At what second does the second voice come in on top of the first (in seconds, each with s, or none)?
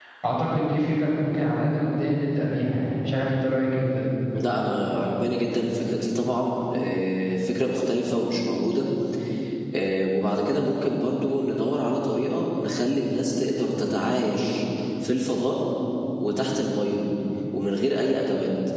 none